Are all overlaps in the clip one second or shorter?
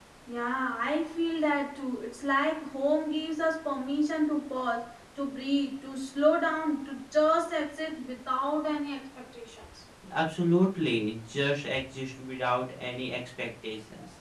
Yes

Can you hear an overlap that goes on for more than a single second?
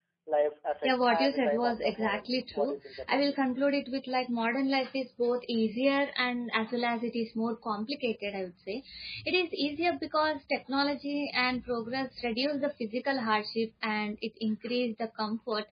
Yes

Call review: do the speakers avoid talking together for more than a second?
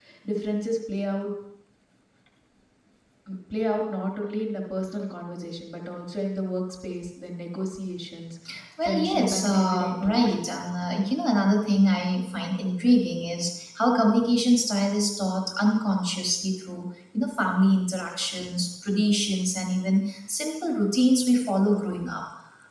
No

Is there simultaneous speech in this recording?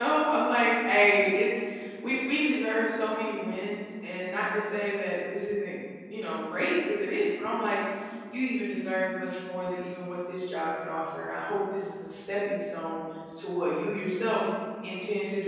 No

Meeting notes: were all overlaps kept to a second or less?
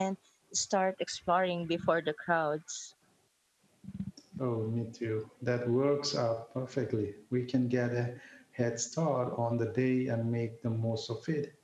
Yes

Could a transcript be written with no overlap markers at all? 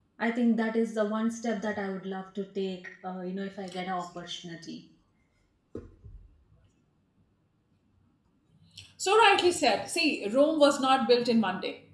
Yes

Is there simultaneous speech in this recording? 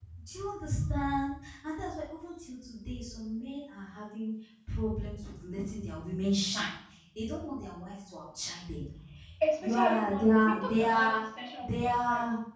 Yes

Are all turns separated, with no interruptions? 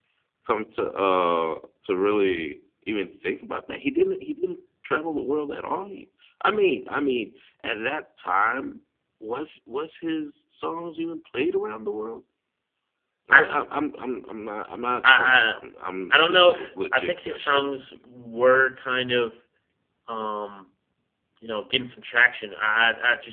No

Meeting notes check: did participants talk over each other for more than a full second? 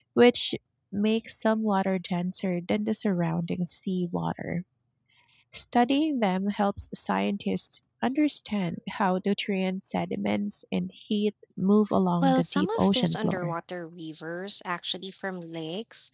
Yes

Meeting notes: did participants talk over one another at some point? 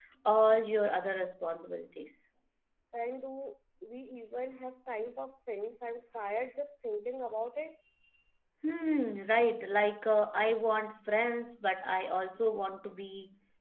No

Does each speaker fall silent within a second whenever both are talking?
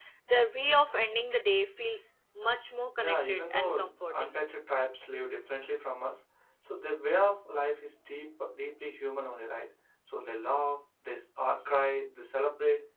No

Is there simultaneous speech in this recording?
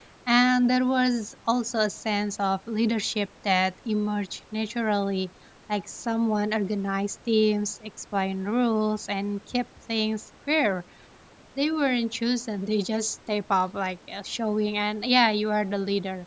No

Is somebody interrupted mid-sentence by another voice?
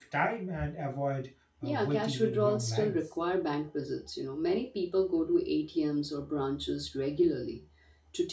Yes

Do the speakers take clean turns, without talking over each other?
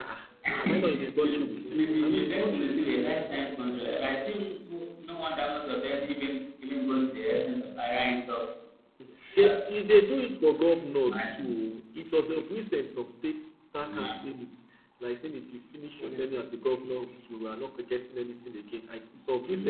No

